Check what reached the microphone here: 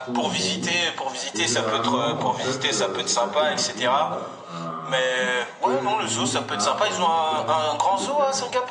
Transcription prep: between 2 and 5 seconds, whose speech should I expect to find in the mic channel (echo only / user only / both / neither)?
both